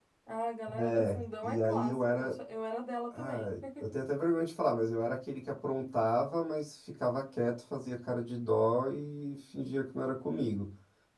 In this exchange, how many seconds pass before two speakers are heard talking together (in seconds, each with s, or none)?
0.8 s